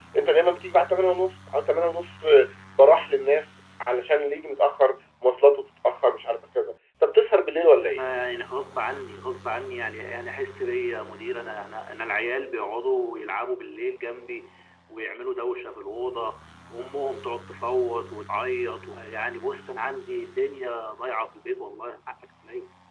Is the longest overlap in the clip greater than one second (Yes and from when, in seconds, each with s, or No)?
No